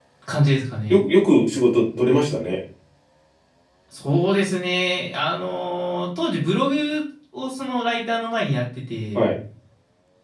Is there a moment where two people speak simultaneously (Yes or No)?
No